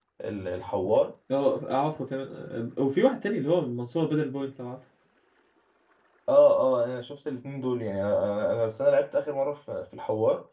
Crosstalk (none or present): none